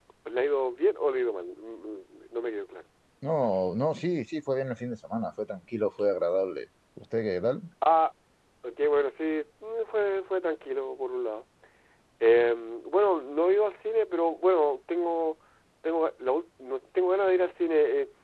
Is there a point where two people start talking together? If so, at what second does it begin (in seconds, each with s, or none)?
none